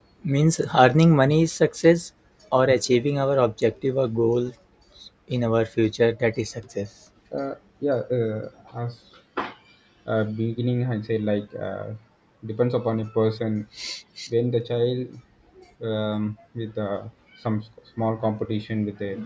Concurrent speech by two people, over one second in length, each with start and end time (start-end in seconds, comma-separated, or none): none